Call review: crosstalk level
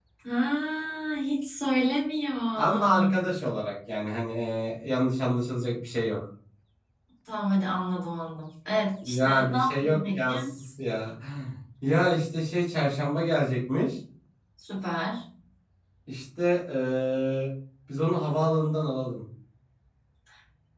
present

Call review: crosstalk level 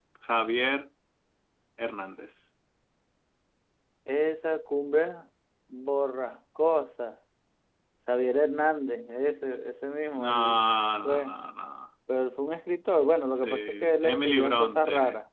present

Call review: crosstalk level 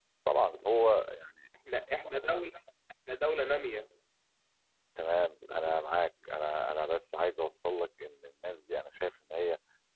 none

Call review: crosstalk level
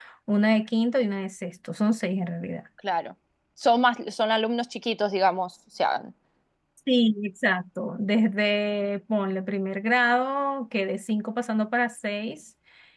none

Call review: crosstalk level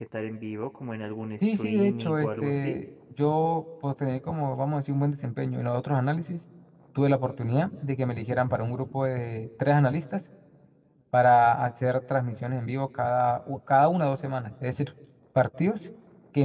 present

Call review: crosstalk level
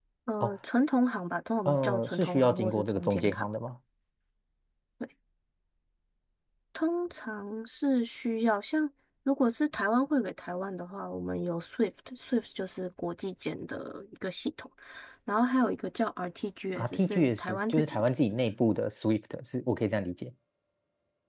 present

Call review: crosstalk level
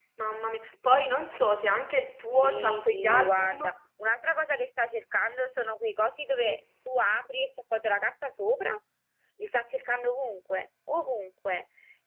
present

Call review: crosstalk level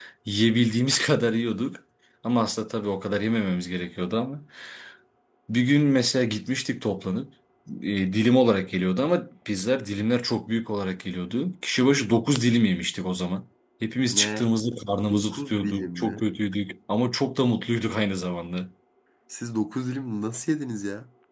present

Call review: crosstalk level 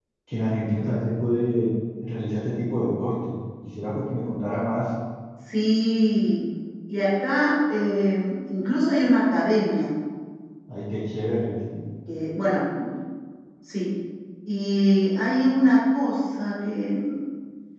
none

